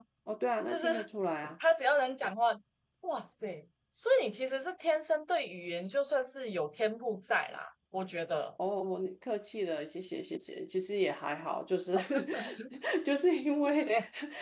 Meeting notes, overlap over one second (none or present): none